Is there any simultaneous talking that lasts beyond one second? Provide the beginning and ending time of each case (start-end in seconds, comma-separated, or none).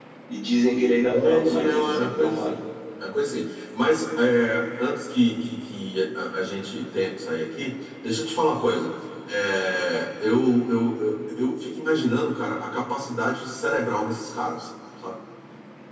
1.1-2.5